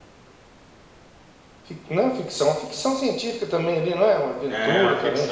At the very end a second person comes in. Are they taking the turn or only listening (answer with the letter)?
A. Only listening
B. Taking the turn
B